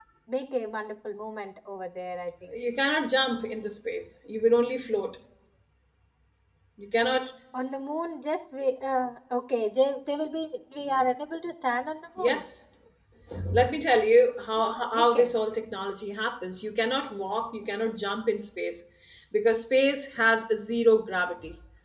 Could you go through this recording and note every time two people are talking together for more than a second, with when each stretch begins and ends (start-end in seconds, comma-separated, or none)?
none